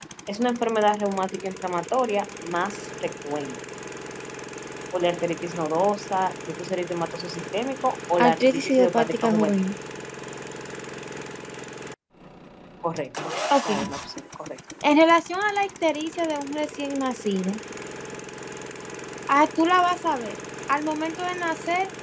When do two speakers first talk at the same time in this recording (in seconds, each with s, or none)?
8.2 s